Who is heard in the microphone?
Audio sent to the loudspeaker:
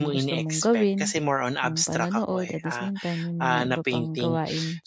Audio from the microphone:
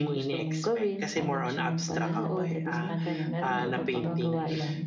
both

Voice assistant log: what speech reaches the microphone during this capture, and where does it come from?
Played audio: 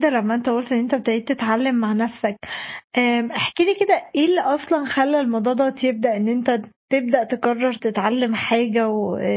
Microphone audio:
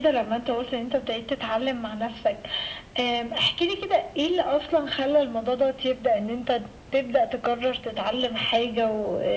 echo only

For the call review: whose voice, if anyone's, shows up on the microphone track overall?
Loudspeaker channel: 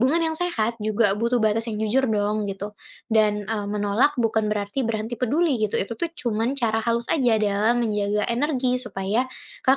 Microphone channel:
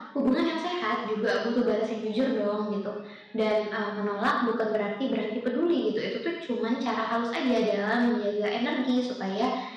echo only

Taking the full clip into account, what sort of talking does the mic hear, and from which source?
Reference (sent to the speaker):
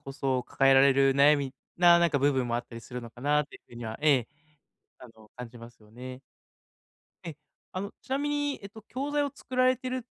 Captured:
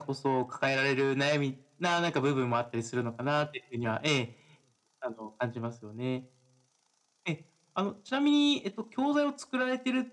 echo only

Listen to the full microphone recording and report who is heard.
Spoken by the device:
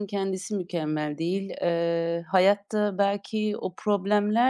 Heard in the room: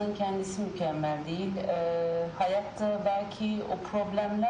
echo only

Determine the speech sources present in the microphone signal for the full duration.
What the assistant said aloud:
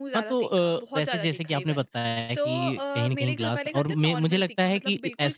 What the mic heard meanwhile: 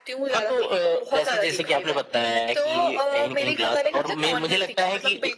echo only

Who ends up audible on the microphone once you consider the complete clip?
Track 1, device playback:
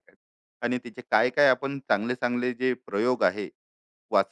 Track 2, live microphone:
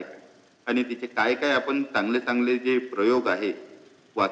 echo only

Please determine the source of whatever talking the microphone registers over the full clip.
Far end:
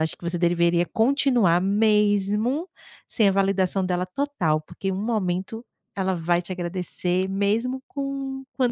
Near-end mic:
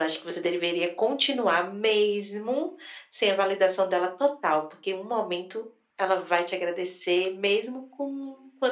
echo only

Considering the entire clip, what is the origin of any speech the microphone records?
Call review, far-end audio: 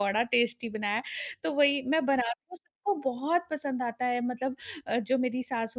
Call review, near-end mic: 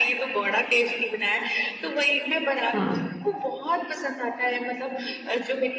both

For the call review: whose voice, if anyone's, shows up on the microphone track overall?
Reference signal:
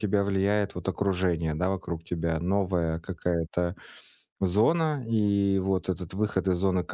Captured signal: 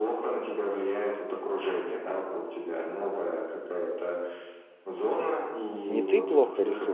both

